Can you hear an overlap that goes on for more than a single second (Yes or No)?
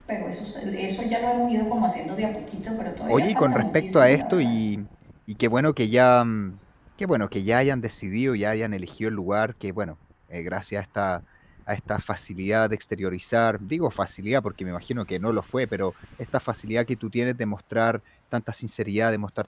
Yes